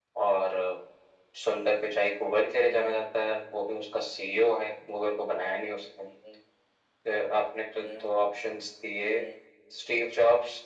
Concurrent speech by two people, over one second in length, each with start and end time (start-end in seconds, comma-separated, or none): none